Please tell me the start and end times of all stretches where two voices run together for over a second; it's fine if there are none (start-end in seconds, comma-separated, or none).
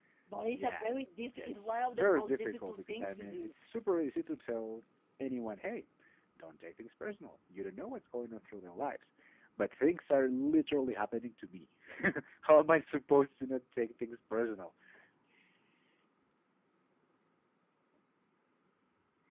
1.4-3.5